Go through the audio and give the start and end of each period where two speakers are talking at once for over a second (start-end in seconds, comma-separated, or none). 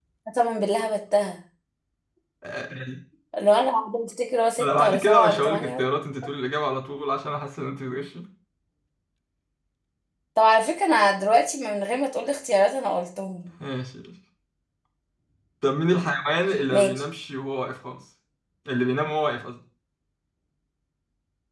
4.6-5.9